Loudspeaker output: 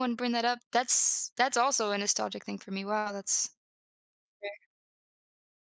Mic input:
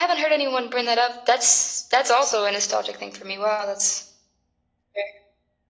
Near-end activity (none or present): none